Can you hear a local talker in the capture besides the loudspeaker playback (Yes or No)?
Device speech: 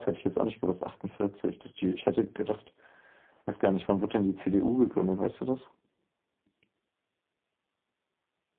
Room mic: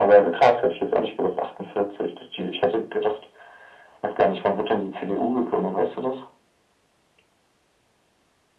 No